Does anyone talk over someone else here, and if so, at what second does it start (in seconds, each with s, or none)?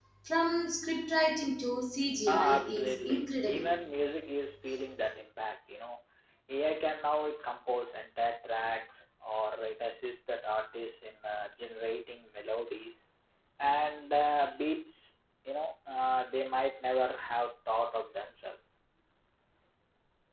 2.3 s